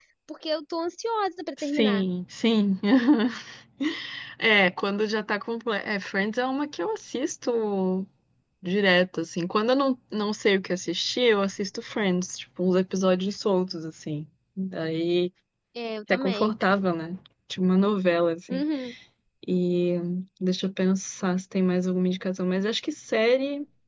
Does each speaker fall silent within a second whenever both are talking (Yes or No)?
Yes